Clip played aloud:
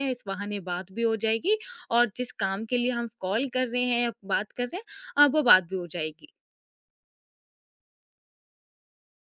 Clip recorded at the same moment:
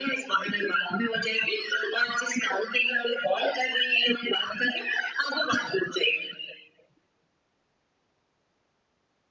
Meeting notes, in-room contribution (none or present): none